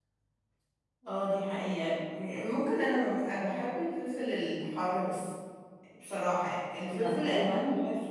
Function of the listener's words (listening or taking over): listening